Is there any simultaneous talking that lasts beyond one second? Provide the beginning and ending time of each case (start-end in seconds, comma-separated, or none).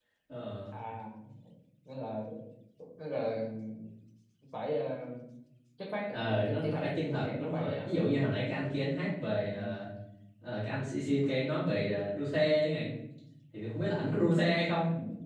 6.1-8.0